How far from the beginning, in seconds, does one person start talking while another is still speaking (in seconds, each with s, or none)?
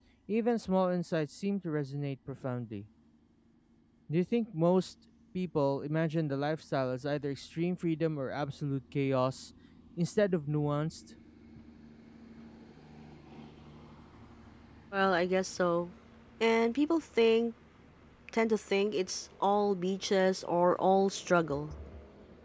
none